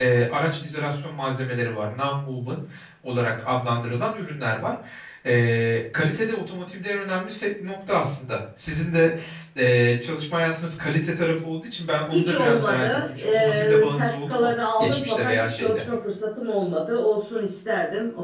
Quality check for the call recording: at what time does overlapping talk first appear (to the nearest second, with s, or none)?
12 s